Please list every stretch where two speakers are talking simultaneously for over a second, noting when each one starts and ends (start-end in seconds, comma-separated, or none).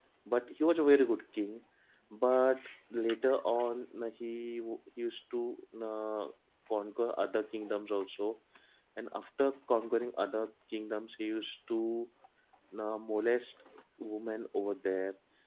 none